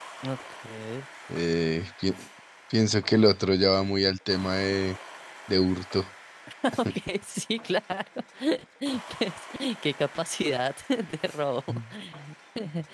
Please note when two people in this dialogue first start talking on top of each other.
none

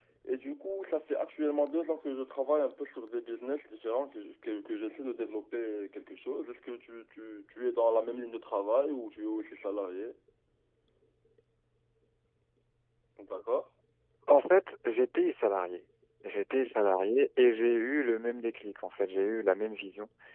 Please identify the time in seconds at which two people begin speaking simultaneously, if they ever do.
none

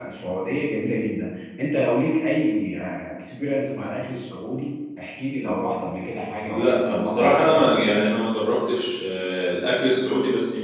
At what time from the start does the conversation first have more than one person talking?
6.5 s

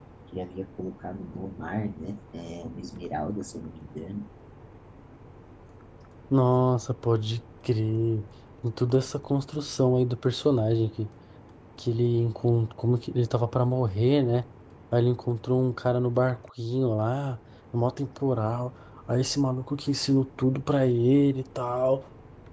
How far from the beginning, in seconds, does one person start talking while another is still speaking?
none

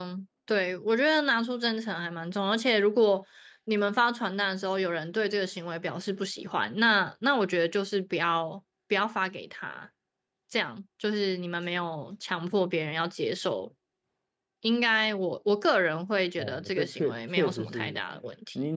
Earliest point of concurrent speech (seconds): 16.4 s

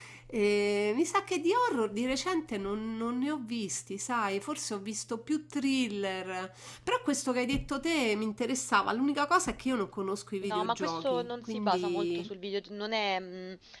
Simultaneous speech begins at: 10.4 s

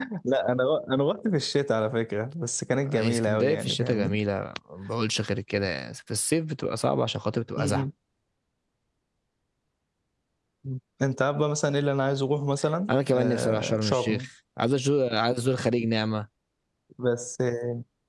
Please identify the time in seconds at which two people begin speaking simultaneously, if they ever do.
2.7 s

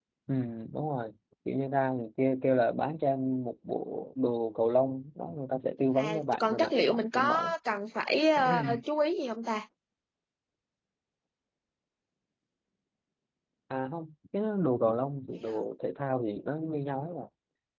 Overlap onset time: 6.0 s

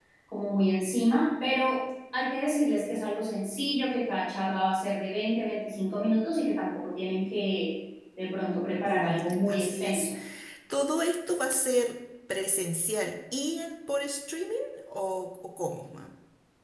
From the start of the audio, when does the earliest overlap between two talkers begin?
8.8 s

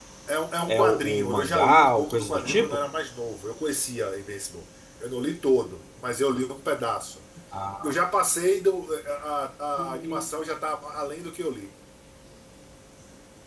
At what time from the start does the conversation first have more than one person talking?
0.7 s

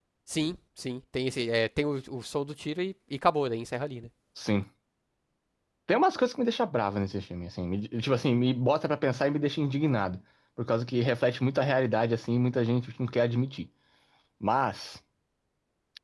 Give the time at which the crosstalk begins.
none

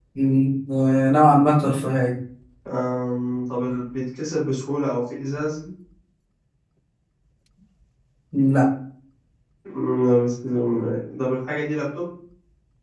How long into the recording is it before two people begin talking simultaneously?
none

